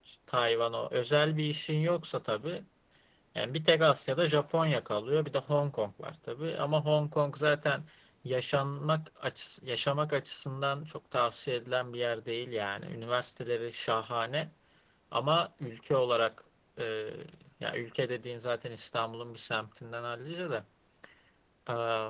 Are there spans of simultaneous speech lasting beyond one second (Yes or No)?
No